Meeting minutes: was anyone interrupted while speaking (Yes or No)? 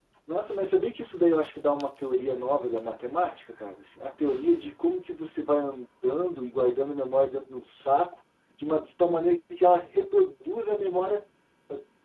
No